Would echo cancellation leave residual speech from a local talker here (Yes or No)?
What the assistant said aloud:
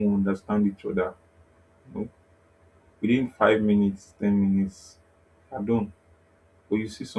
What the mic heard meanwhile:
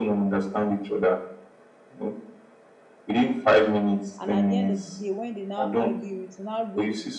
Yes